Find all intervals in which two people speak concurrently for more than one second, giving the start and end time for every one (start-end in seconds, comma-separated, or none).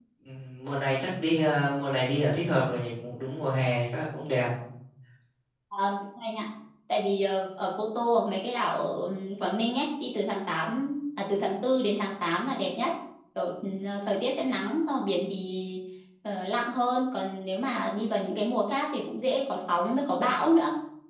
none